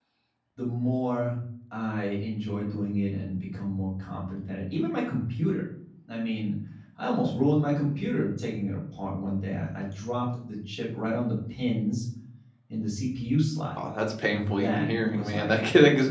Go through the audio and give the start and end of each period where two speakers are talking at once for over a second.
14.2-15.5

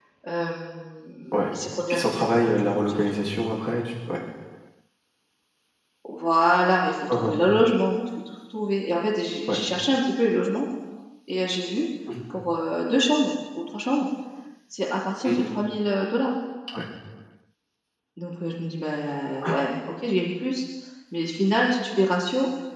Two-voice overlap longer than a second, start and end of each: 1.9-3.2

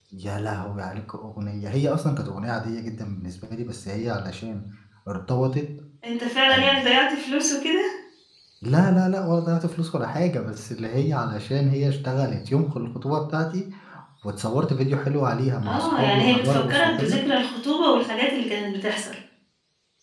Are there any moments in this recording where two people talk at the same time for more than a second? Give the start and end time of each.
15.7-17.2

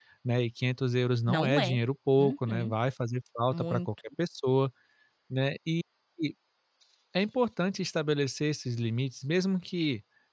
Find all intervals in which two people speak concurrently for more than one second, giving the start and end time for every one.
none

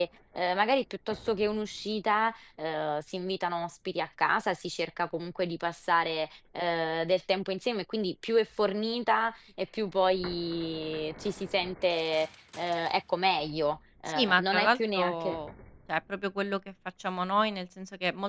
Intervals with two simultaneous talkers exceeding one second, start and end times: 14.1-15.4

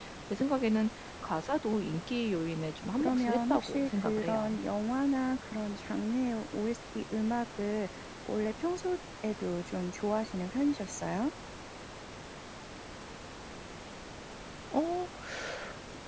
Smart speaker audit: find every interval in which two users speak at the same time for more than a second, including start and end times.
3.0-4.6

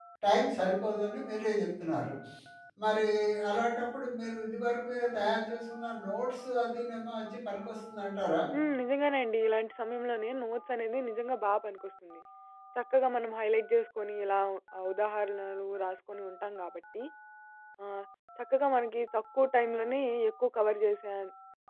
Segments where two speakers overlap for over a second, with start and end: none

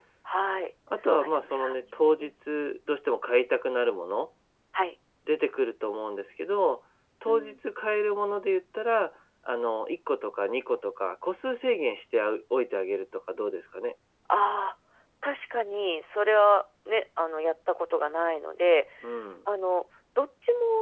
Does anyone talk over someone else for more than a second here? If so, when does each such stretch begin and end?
1.2-2.4

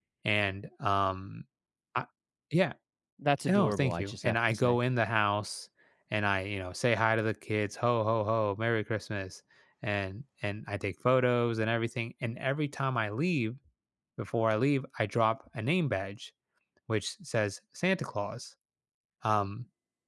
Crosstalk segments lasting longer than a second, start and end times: 3.5-4.8

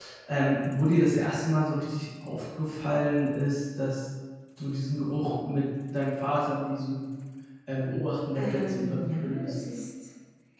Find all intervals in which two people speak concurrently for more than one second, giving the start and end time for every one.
8.3-9.6

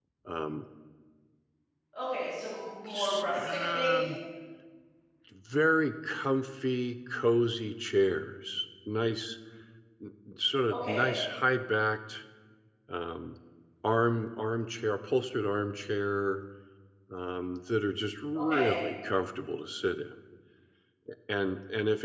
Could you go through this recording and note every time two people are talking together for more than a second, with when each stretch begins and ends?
2.9-4.1

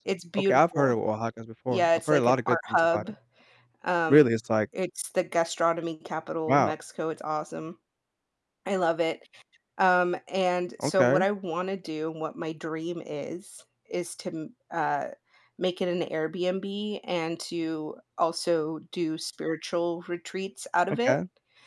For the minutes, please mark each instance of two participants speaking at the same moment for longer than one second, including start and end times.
1.7-3.0

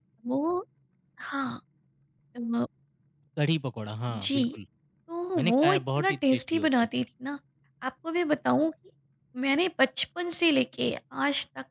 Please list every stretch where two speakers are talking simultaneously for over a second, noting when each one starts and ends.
5.4-6.9

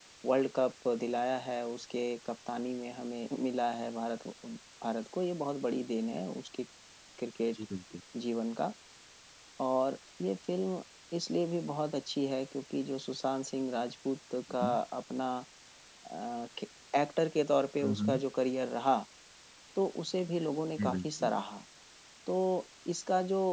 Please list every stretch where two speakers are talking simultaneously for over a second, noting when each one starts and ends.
none

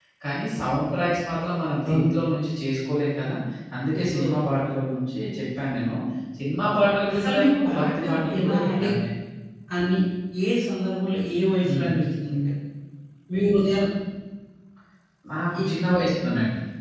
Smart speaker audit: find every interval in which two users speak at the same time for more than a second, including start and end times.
7.1-8.9

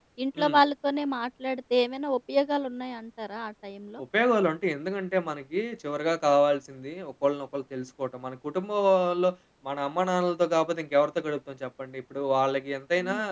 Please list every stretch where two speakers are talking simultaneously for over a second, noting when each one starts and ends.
none

